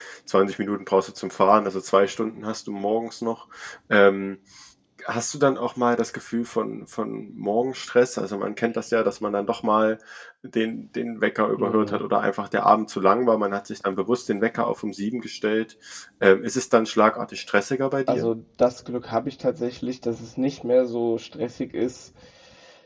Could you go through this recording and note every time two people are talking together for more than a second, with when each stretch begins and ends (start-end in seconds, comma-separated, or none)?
none